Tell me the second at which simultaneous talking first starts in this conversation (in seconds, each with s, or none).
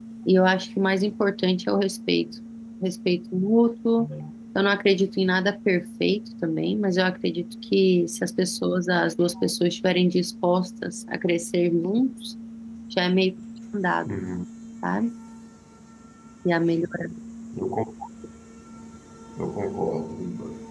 none